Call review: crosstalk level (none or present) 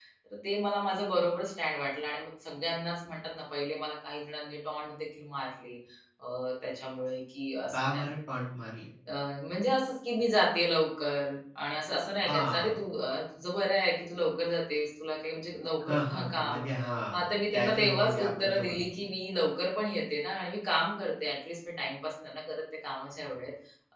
present